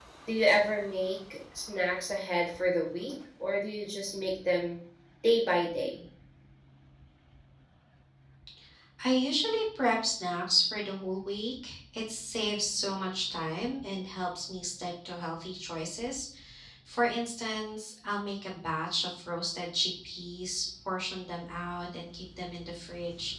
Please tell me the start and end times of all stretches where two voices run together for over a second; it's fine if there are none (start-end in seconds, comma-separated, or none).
none